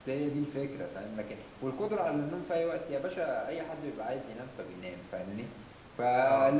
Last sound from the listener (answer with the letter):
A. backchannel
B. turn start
A